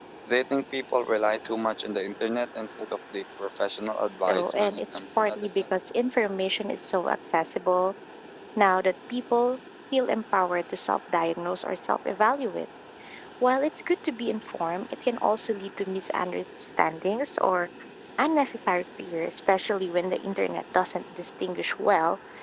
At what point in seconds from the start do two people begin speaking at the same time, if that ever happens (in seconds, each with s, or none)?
4.3 s